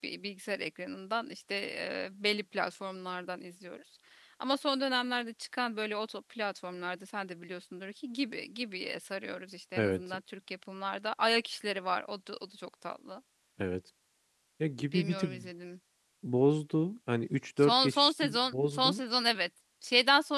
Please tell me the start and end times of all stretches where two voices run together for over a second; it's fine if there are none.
17.6-19.0

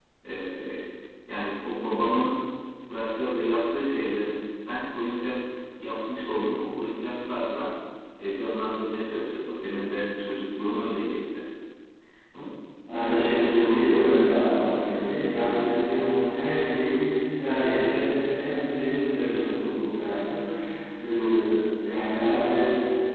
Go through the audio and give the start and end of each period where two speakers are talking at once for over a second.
none

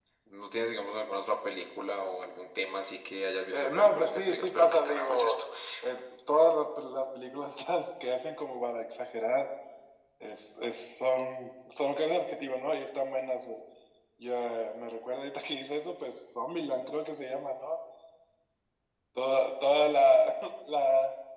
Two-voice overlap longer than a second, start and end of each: 3.5-5.4

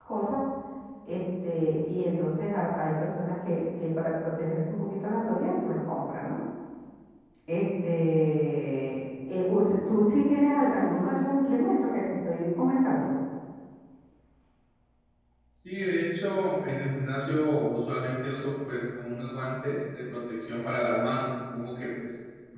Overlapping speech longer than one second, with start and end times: none

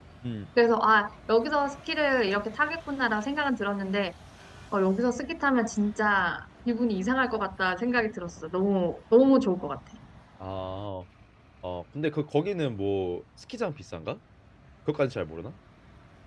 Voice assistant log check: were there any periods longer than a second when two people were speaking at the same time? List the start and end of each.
none

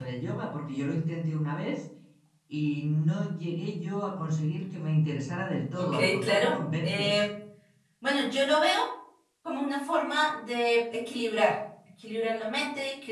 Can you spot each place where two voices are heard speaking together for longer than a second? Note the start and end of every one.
5.8-7.2

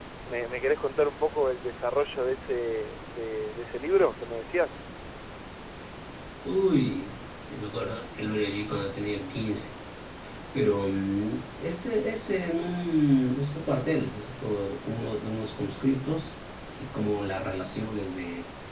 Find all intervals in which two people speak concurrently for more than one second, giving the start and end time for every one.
none

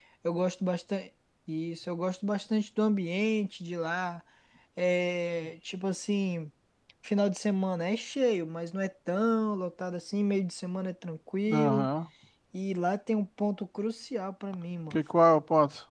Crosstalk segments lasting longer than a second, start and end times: none

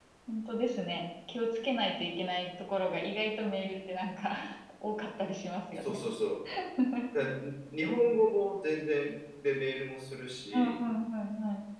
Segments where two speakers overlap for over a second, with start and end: none

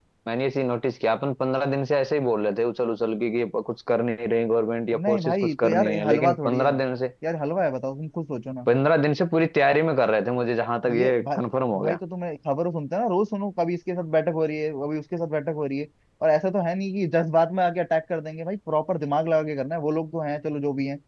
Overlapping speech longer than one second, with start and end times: 4.9-6.8

